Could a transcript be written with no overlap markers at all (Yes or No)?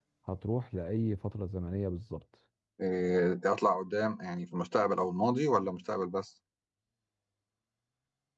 Yes